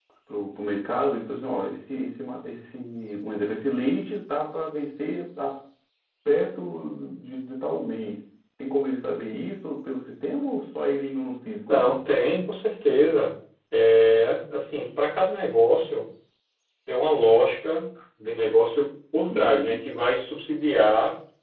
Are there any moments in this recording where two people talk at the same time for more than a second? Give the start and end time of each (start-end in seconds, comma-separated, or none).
none